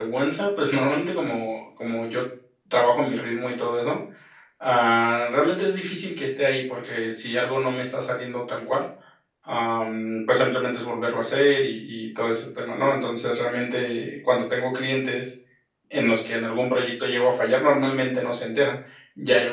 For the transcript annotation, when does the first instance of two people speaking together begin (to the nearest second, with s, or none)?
none